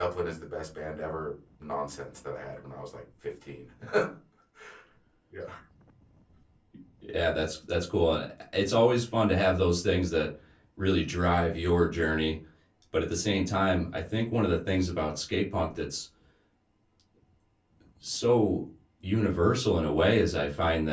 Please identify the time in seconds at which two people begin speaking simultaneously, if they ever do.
none

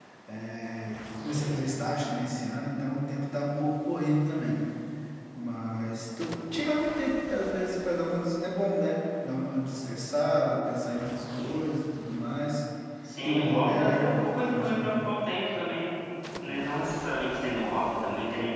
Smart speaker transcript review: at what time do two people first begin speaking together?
13.2 s

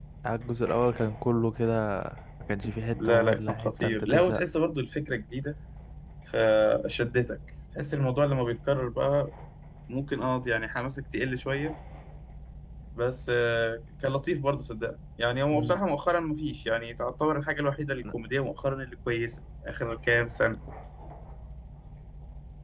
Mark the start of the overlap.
2.9 s

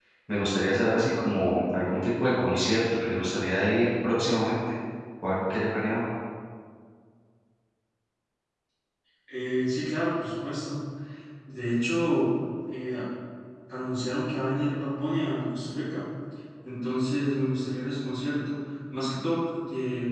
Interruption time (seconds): none

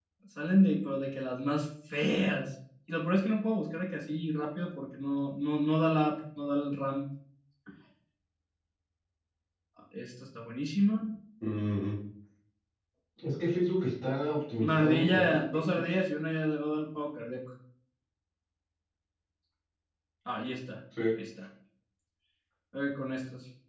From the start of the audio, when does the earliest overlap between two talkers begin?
14.6 s

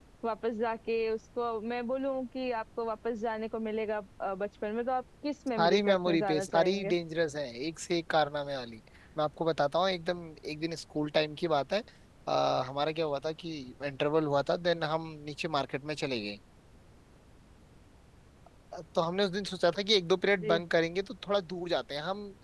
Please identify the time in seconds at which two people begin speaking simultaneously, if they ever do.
5.6 s

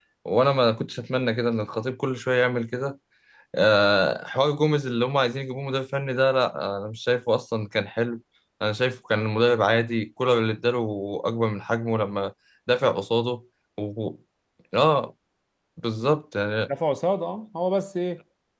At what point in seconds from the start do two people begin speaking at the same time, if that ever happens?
none

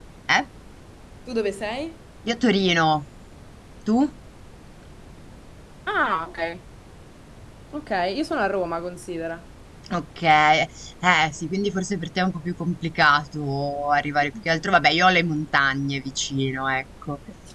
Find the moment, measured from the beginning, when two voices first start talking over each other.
none

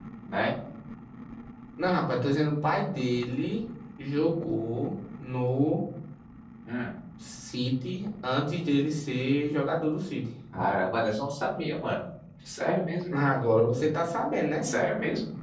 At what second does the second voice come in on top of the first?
none

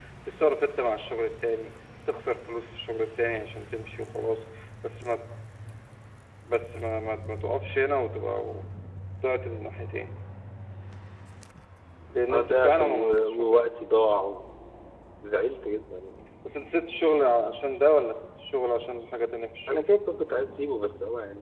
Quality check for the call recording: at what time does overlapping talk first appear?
12.3 s

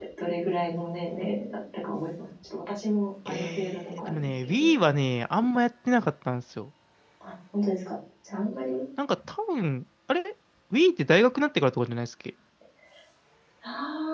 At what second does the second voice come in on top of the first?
3.3 s

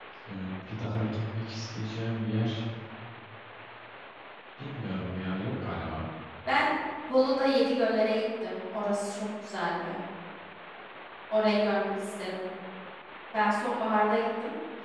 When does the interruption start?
none

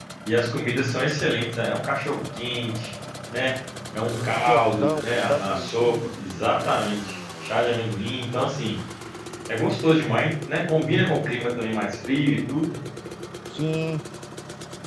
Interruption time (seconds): 4.5 s

